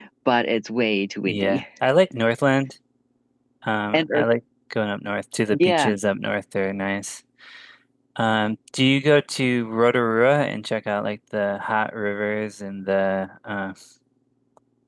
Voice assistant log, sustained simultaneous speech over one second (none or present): none